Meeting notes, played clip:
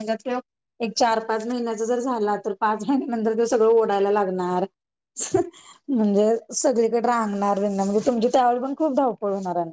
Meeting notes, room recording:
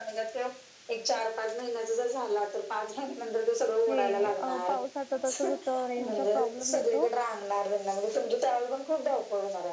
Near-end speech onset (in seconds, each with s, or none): 3.9 s